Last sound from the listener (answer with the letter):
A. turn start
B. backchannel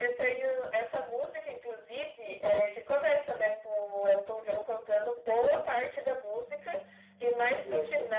B